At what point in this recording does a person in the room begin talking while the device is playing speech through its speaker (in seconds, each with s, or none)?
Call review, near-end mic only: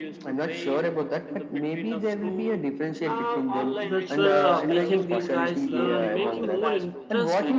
3.8 s